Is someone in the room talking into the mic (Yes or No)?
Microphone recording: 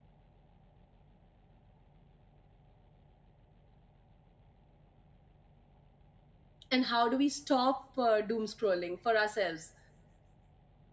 Yes